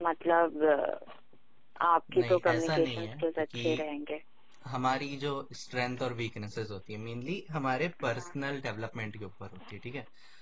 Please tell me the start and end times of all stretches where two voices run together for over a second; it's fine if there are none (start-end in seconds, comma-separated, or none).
2.2-3.8